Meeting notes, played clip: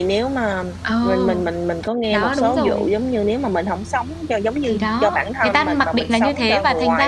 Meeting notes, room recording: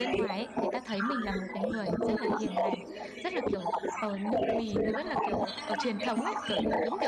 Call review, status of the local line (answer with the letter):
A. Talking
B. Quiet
A